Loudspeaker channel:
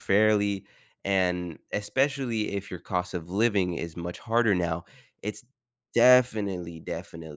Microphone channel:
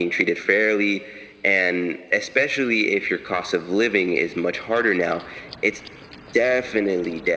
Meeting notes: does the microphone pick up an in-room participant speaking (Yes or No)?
No